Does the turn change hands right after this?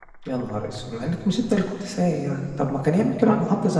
No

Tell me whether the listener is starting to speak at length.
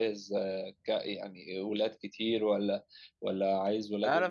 Yes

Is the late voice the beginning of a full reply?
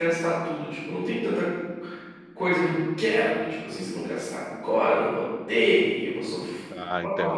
No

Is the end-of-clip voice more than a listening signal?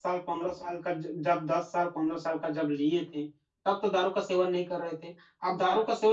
No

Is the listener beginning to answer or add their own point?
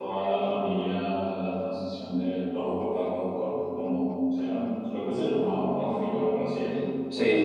Yes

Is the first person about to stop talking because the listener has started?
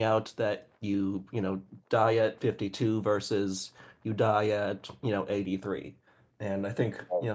No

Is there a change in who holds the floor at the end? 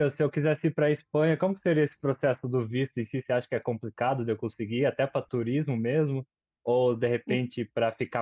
No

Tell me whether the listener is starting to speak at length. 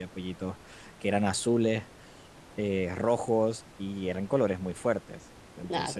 No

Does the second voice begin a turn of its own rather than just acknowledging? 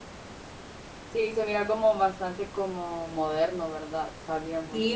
Yes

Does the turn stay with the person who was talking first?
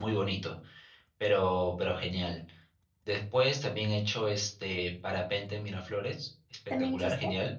Yes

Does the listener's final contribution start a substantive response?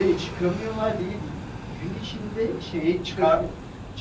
No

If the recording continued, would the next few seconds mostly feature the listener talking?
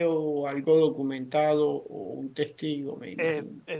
Yes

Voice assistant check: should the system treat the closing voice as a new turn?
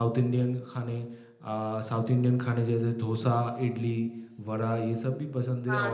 No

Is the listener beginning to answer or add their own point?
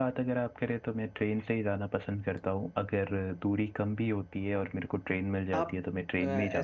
Yes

